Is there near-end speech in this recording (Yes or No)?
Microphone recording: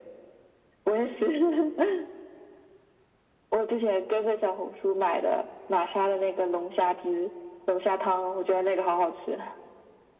No